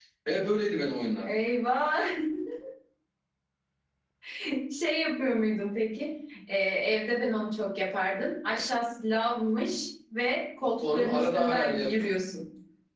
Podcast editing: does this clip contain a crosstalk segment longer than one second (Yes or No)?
Yes